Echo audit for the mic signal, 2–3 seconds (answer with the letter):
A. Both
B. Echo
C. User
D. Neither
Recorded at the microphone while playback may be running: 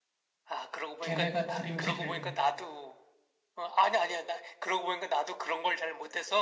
A